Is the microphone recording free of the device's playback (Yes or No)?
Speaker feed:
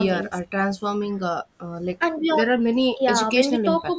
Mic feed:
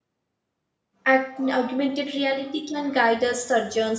Yes